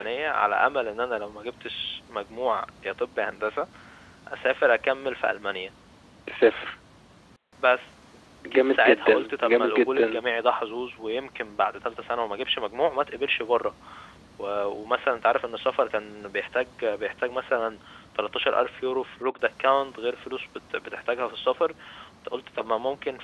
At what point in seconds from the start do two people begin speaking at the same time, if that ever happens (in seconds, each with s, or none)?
8.6 s